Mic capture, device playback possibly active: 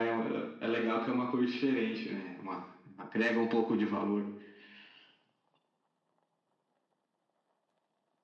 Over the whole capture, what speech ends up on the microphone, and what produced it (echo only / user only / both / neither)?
echo only